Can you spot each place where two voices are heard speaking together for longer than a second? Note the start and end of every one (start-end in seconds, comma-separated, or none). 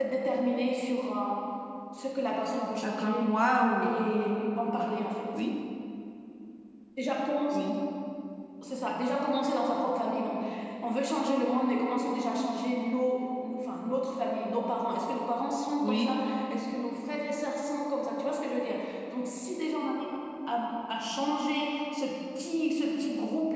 none